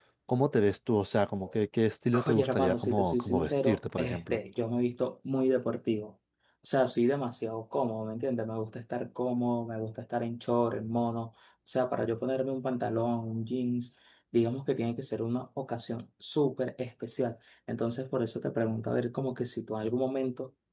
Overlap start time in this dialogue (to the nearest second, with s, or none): 2 s